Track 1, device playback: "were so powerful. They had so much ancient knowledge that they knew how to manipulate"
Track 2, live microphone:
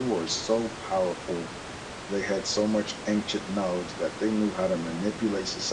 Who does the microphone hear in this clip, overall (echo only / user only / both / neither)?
echo only